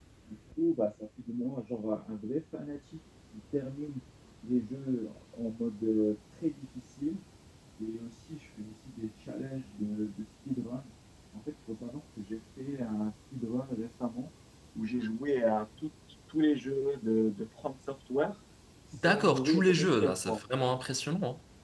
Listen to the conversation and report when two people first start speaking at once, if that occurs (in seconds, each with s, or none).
19.1 s